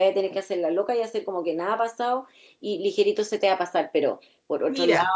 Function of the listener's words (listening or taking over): listening